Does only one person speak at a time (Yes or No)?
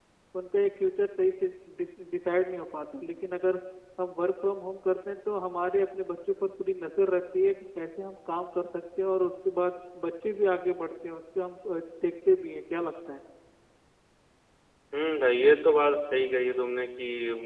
Yes